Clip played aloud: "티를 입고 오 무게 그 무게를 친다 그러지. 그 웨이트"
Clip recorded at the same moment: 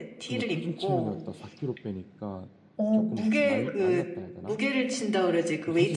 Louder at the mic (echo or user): echo